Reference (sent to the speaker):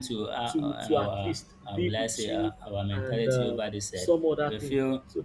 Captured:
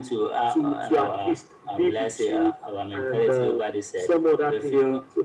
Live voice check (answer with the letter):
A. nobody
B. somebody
A